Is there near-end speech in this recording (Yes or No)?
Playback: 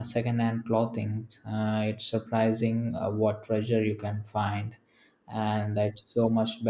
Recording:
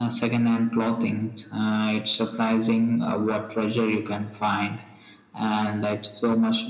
No